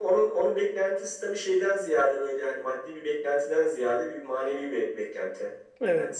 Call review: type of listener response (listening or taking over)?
listening